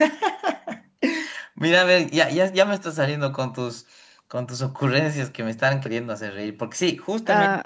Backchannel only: No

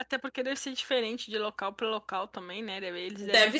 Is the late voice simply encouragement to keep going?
Yes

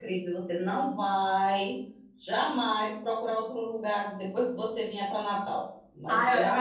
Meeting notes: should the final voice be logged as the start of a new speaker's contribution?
Yes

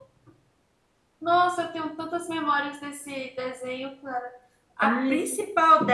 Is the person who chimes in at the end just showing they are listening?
Yes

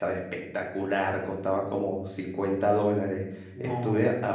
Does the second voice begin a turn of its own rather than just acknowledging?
No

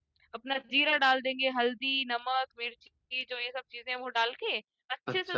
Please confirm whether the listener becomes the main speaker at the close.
No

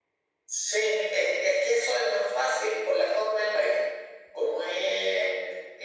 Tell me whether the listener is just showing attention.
Yes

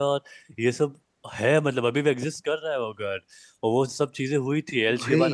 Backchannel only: Yes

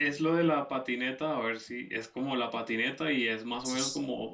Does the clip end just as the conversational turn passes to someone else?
No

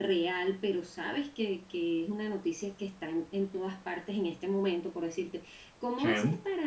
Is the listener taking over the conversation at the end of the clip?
No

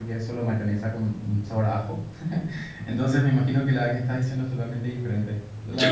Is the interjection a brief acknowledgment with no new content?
No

